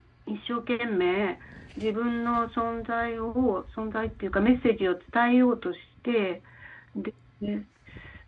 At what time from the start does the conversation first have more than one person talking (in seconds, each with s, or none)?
none